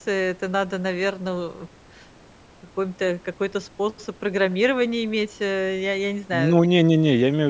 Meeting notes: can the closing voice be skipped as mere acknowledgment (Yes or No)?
No